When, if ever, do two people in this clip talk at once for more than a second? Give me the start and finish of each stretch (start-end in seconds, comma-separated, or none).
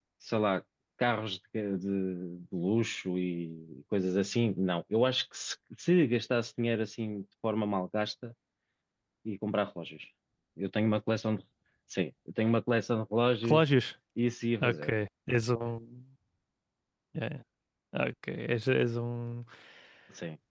none